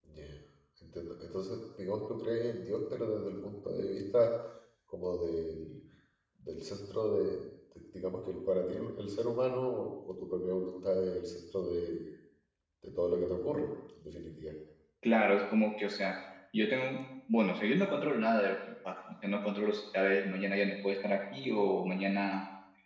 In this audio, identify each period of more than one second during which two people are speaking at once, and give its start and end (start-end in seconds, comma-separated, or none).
none